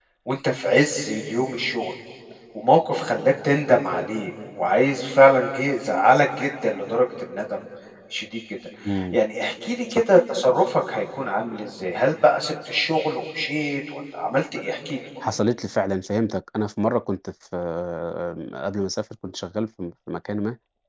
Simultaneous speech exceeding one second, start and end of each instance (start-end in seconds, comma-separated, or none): none